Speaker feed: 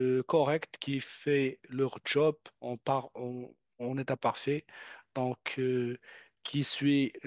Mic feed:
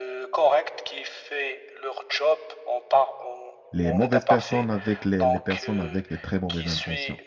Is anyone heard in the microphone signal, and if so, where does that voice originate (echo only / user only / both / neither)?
both